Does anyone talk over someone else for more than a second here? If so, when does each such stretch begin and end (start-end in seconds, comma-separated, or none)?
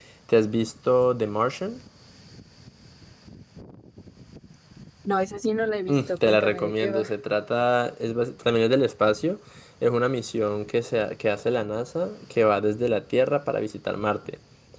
5.9-7.1